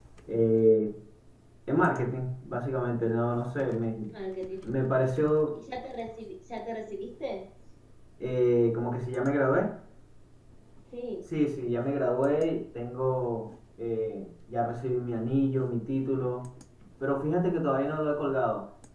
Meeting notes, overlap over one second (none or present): none